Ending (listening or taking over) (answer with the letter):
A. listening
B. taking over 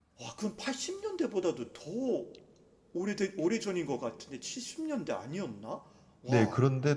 B